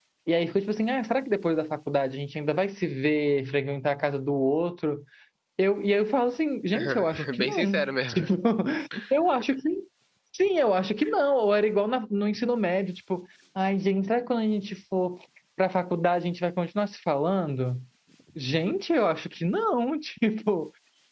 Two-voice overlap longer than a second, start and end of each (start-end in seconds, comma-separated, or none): 6.7-8.3